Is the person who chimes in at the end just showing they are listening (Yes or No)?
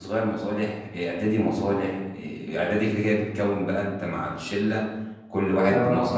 Yes